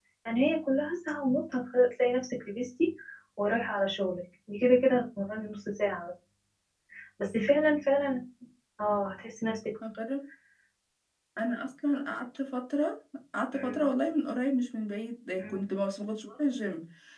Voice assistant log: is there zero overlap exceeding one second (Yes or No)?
Yes